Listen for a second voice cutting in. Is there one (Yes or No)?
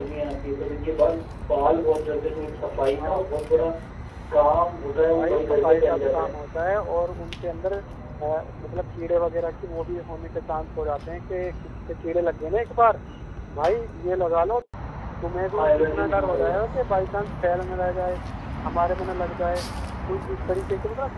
Yes